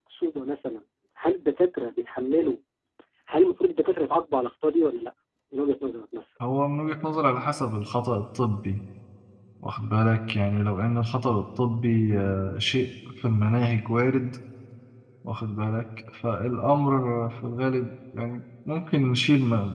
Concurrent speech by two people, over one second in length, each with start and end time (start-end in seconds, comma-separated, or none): none